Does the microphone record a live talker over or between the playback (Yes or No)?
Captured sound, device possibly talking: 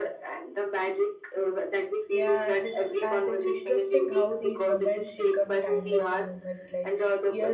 Yes